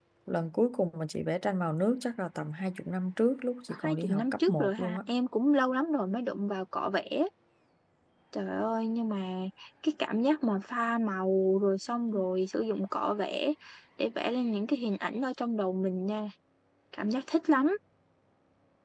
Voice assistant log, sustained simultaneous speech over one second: present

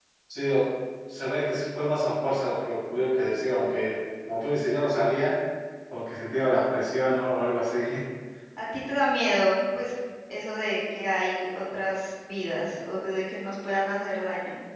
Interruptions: none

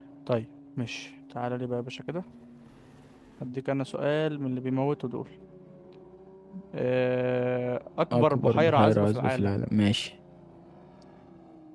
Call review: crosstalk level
present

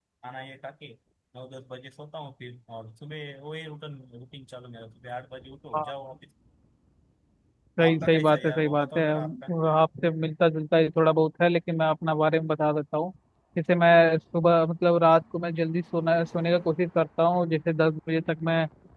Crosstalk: present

